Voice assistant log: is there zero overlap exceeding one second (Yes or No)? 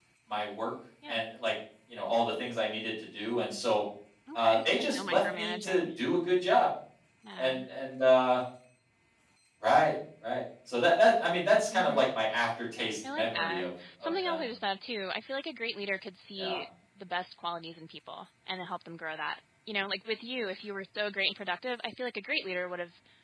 No